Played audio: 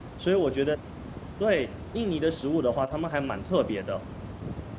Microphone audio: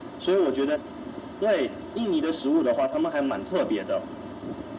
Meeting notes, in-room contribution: none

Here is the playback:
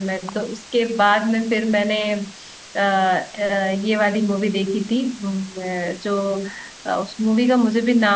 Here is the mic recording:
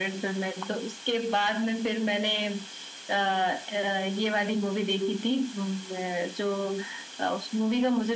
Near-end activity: none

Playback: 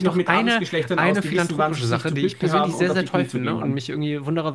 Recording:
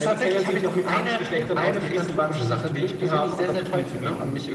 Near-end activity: none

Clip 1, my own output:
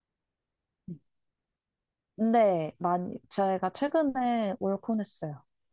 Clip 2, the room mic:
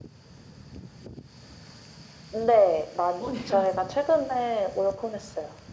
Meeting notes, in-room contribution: present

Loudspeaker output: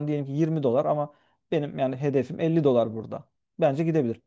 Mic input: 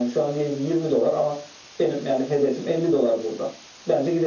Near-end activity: none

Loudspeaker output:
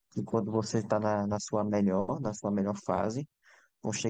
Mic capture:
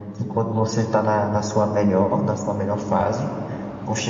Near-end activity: none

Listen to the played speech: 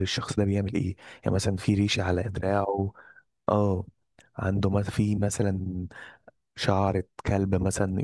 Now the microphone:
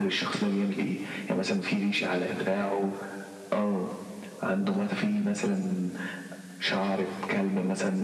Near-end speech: present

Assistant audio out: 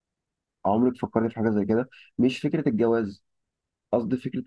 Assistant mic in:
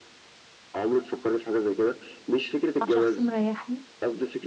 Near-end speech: present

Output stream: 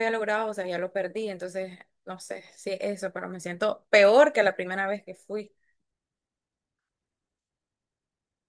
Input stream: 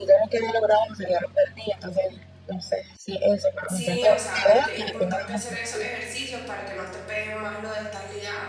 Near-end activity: present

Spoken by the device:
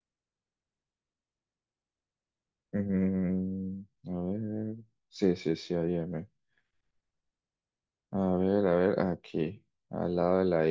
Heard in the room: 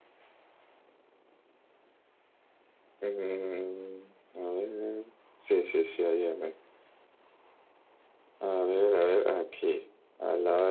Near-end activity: none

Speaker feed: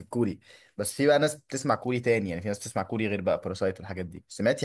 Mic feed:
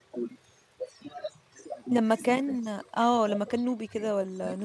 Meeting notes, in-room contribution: present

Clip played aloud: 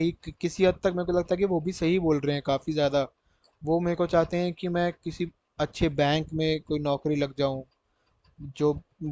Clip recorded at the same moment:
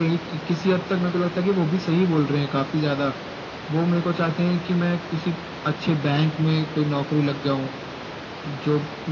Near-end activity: none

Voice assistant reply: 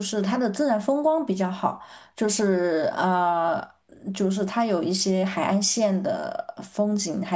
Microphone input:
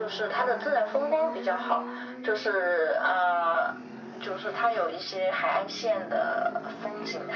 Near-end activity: none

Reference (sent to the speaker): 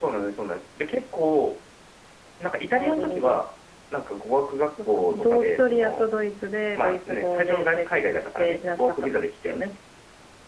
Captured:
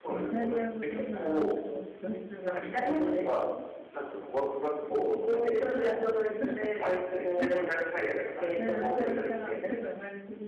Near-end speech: present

